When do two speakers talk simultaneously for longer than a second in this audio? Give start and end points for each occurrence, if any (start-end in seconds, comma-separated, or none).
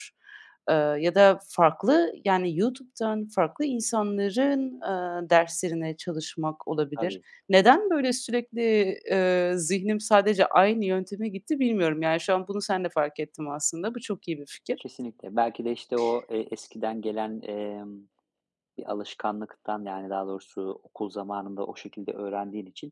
none